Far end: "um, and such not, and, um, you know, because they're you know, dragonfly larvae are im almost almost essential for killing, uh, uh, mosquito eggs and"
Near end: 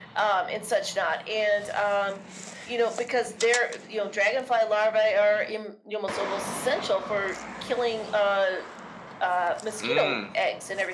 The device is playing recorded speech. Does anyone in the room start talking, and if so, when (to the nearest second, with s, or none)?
10 s